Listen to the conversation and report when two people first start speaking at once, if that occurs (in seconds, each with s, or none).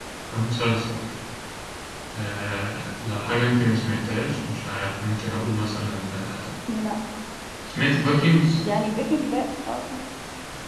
none